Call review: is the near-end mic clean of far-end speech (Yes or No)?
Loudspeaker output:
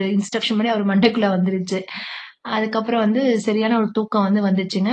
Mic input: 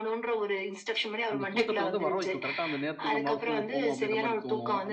No